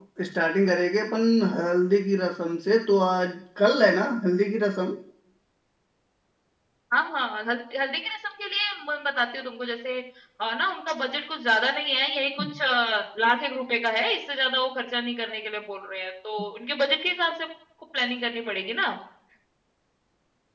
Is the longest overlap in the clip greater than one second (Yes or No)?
No